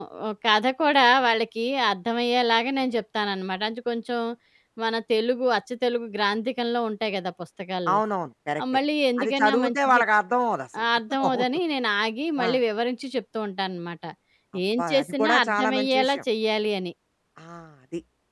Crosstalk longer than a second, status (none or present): present